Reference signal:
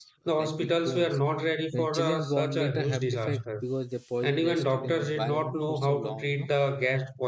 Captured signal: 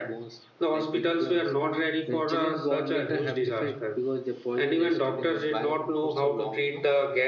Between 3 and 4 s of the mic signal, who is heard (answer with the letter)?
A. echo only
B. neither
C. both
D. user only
A